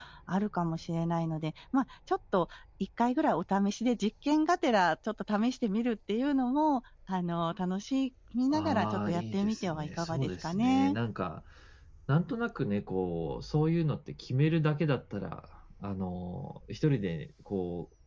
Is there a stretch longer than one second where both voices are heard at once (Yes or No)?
Yes